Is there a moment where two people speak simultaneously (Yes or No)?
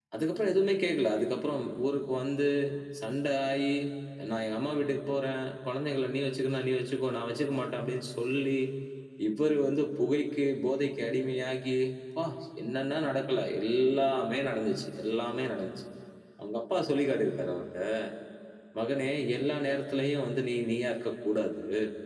No